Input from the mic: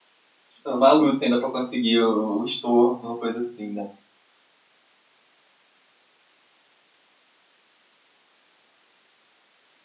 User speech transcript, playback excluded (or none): É uma luta ainda pra conseguir o, o estorno, uma coisa assim, né?